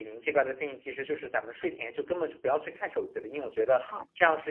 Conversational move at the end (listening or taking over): listening